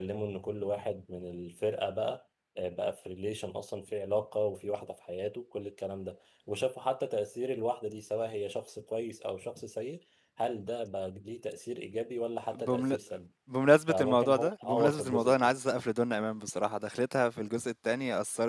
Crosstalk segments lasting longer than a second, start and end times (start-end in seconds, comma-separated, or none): 13.9-15.5